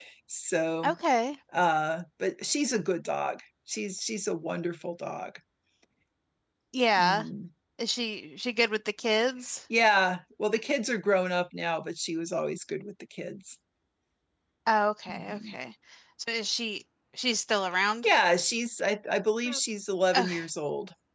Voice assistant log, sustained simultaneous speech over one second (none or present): none